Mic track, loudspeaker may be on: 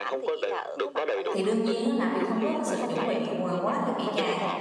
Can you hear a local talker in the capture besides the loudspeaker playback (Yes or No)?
Yes